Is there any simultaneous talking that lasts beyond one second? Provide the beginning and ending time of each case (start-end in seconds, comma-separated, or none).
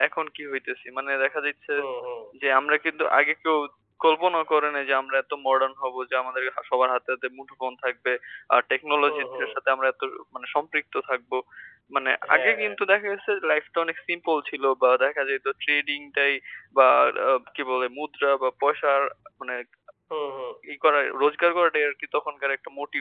none